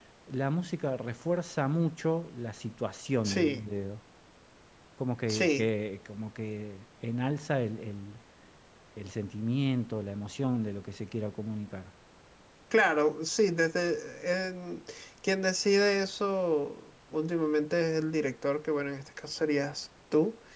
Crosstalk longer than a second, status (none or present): none